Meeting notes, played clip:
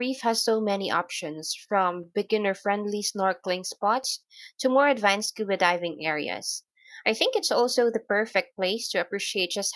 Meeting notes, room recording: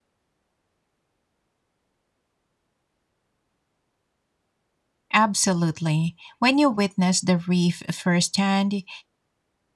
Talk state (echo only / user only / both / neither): user only